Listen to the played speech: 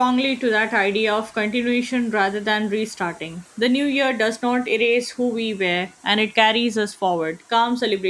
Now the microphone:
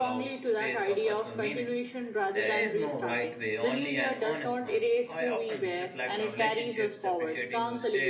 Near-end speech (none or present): present